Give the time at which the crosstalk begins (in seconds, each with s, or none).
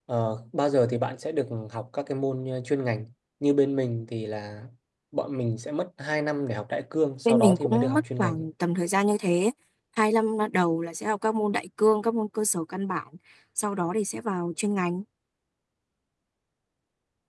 7.2 s